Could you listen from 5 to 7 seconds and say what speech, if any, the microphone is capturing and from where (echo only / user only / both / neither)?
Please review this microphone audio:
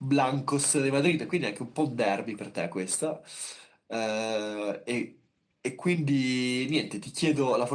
echo only